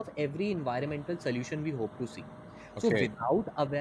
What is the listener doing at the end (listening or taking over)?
listening